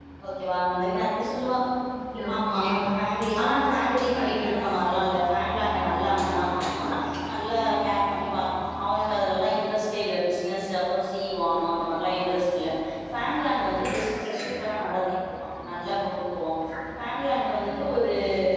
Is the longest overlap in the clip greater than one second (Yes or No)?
Yes